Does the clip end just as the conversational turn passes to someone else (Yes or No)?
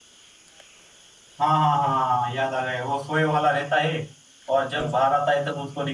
No